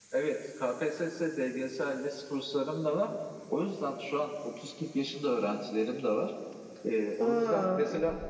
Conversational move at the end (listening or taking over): listening